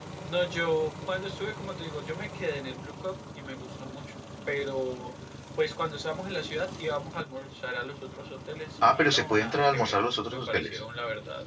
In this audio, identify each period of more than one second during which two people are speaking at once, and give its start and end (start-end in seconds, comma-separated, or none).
8.9-10.8